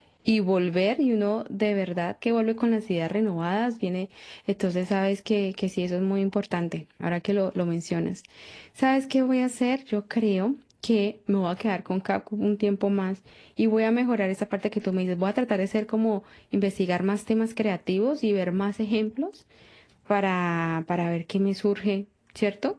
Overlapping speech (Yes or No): No